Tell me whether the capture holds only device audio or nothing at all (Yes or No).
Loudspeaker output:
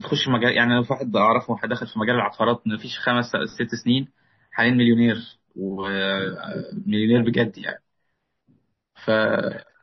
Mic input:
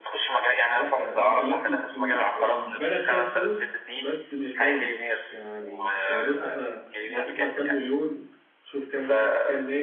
No